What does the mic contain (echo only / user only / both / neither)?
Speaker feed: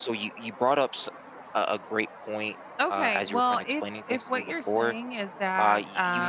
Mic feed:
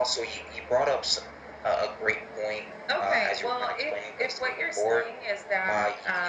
echo only